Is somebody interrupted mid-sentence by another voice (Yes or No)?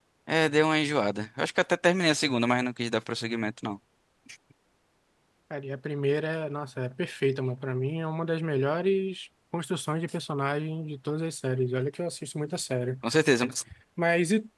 No